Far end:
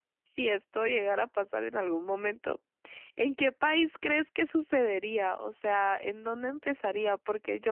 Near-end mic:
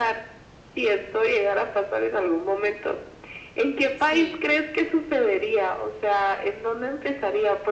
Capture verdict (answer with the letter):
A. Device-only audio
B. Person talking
B